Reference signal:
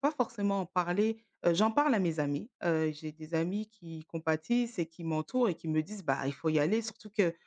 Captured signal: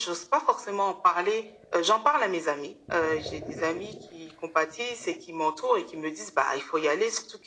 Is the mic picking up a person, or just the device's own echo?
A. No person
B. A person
A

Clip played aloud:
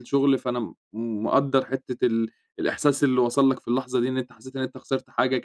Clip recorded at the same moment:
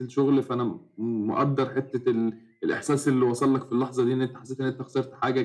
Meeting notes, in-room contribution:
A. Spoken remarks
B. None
B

